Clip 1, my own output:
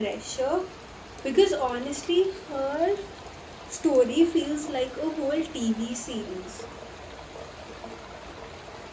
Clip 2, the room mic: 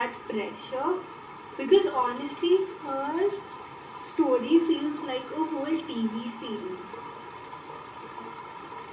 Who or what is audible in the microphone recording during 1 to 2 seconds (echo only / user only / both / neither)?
echo only